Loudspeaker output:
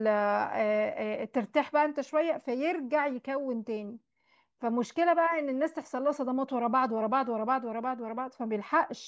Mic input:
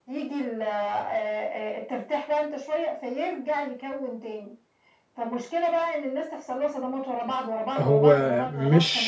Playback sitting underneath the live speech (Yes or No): Yes